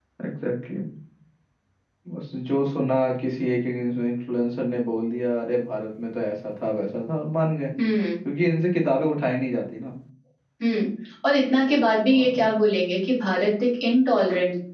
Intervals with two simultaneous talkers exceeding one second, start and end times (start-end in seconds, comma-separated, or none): none